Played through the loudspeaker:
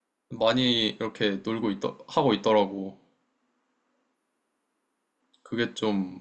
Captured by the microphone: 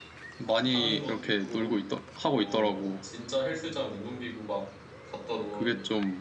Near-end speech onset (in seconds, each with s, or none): 0.5 s